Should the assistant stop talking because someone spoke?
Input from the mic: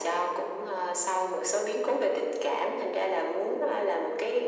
No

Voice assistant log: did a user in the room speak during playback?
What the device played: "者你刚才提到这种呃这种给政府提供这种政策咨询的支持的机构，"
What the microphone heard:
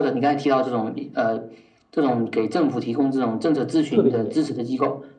Yes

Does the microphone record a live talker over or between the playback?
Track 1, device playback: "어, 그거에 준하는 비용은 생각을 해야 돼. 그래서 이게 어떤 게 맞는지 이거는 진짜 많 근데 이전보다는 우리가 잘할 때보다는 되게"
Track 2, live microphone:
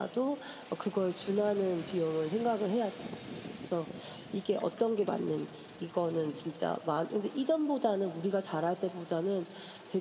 No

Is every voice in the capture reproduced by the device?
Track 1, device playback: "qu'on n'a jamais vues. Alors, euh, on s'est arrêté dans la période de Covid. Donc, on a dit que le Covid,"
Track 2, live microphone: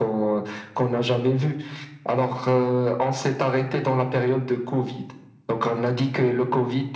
Yes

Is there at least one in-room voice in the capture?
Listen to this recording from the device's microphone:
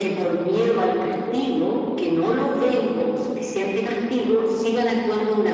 No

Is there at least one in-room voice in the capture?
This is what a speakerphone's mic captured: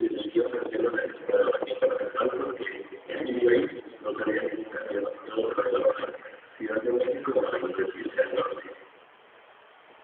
No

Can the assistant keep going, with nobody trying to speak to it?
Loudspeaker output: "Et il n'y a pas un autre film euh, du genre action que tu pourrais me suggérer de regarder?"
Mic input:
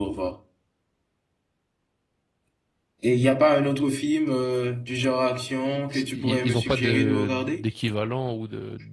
No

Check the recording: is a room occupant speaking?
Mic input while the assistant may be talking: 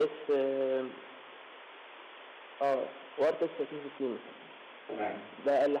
Yes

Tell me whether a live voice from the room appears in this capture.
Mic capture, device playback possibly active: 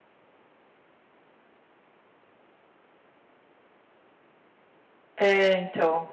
Yes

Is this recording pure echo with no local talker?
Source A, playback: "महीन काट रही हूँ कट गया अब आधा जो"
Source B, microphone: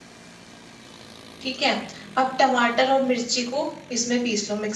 No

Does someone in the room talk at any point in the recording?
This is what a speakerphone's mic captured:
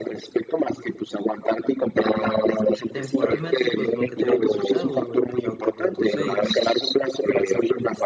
Yes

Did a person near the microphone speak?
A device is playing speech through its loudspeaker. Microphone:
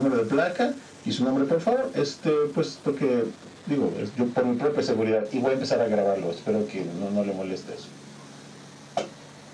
No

